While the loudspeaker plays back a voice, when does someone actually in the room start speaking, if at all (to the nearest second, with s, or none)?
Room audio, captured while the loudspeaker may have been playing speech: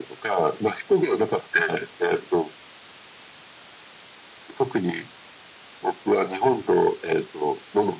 none